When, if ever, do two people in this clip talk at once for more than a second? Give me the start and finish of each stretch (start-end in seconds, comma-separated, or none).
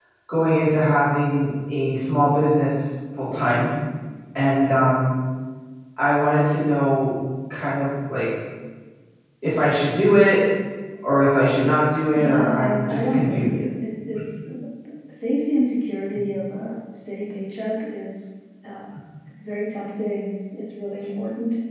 12.1-13.5